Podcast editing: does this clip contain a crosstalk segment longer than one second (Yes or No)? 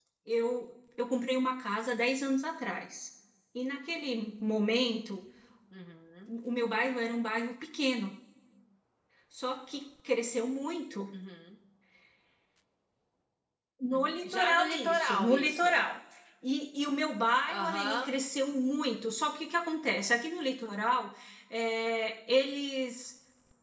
Yes